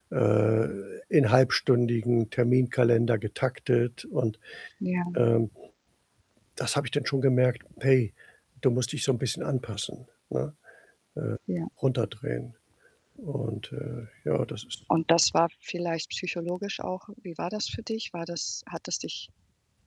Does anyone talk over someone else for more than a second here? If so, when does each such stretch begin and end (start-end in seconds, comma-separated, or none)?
none